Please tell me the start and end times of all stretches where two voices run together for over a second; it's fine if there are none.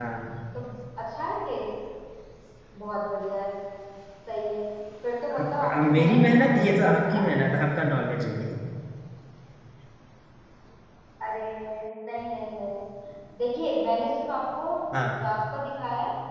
5.6-7.3

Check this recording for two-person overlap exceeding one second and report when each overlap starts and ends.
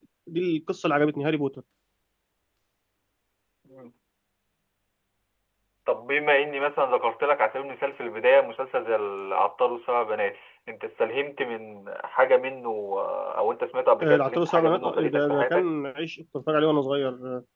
14.0-15.7

